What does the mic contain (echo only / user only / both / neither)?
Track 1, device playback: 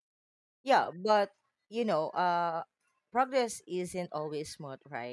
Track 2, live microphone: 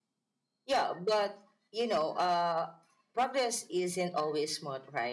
echo only